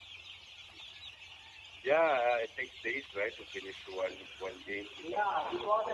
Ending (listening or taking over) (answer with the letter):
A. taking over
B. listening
A